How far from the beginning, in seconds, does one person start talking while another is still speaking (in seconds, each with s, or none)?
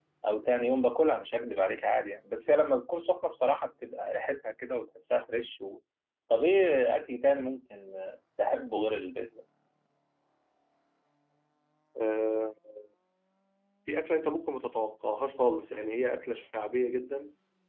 none